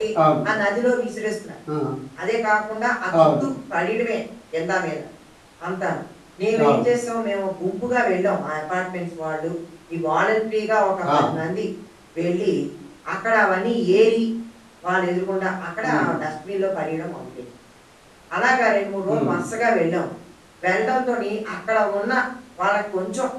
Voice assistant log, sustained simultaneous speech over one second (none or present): none